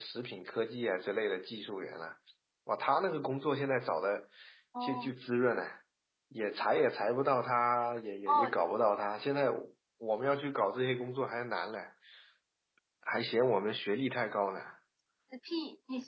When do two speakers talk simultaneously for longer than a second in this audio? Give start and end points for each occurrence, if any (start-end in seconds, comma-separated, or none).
none